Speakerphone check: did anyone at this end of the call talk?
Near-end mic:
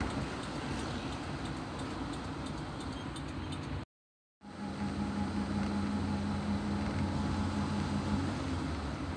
No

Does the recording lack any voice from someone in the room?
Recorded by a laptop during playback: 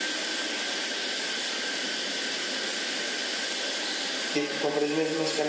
No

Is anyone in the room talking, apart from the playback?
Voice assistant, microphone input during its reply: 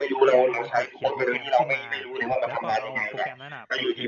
Yes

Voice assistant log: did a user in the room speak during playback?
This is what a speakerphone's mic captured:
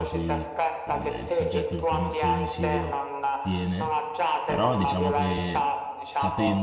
Yes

